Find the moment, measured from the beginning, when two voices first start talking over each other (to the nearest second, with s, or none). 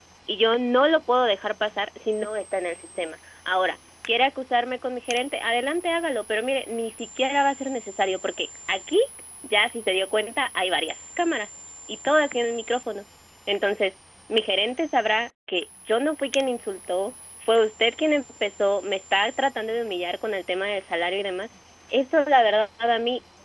none